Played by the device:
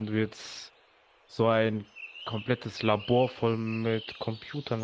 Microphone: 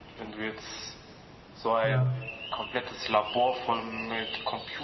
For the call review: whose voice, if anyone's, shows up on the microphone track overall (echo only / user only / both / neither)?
both